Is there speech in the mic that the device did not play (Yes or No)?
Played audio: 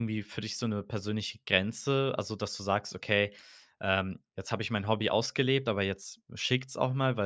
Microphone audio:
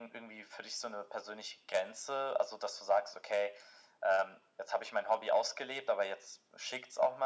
No